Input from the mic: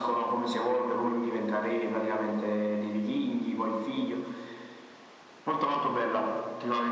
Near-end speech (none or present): none